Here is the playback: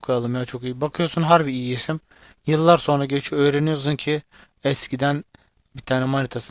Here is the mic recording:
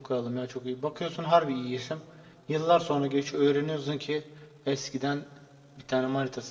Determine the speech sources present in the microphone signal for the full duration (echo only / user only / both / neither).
echo only